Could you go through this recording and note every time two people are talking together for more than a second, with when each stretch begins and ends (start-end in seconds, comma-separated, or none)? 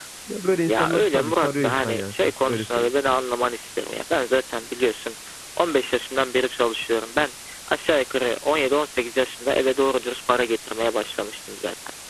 0.7-2.9